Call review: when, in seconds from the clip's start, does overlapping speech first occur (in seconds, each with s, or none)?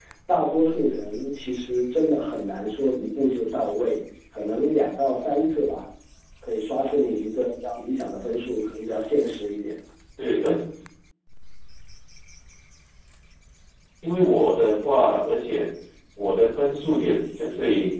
none